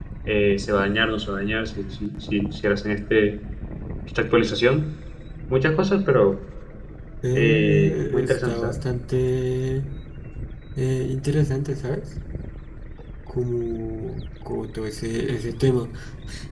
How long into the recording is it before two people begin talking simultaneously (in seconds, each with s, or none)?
7.3 s